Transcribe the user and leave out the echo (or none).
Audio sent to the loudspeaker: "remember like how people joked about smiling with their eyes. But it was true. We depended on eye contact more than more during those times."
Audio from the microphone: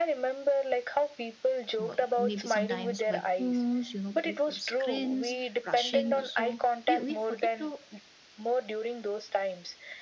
Well, Maybe sometimes by phones, you know, through screens, rushing. So we, we forget to